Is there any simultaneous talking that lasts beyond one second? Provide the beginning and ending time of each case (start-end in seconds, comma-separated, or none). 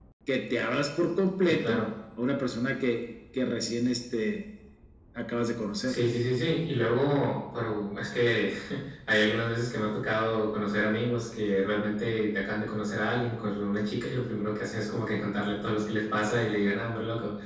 none